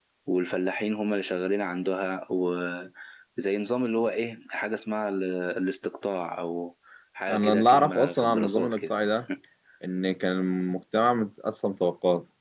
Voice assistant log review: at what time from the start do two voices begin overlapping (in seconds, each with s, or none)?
7.3 s